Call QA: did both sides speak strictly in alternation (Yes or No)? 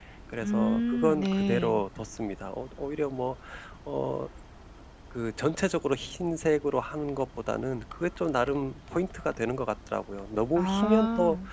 No